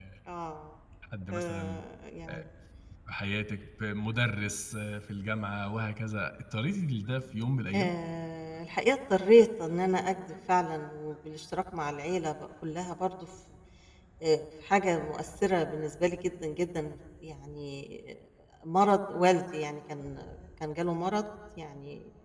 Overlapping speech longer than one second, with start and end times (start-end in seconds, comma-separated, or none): none